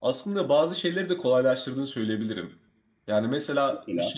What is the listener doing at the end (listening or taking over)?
listening